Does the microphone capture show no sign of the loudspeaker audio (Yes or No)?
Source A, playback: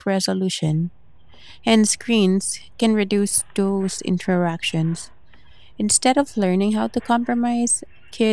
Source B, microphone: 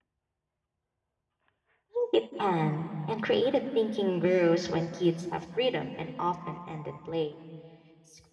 Yes